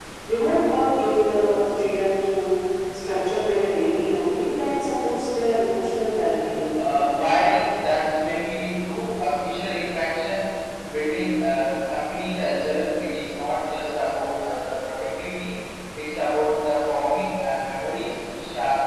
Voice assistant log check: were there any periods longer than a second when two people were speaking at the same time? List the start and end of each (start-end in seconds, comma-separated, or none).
none